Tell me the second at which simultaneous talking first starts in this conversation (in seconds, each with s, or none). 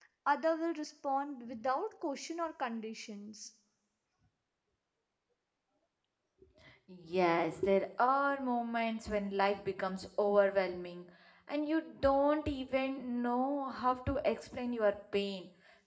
none